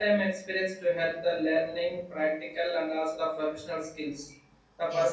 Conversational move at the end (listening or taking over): listening